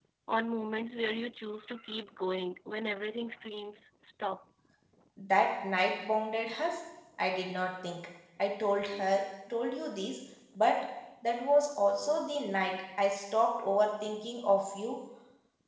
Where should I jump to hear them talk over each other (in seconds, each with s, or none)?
none